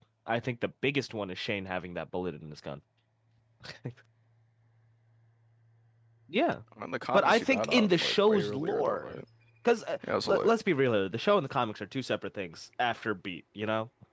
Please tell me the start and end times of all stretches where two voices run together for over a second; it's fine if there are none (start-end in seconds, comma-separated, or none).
7.1-9.2